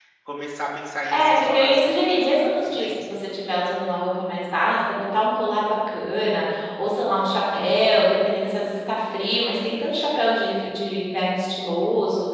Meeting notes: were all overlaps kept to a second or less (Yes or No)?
No